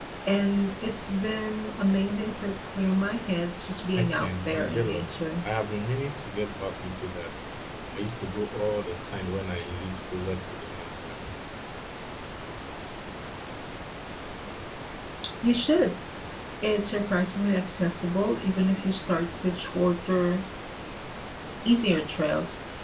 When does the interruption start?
4 s

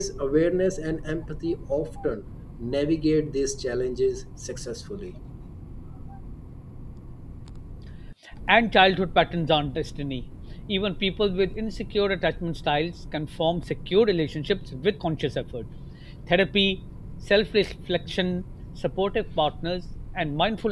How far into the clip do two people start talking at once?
none

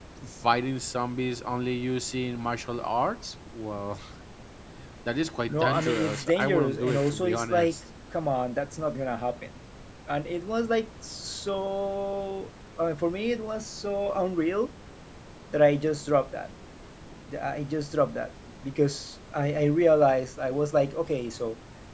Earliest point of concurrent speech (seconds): 5 s

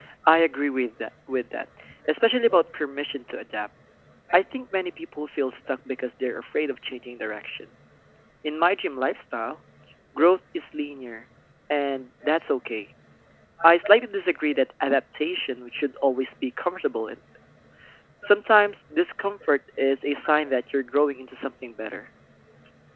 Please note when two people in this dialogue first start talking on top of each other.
none

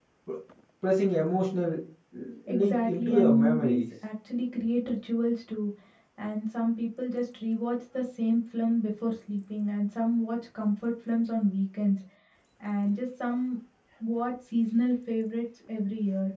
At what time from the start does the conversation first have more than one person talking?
2 s

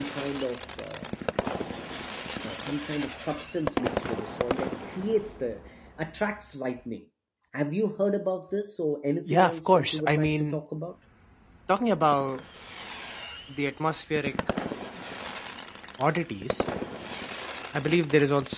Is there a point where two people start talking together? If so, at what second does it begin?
9 s

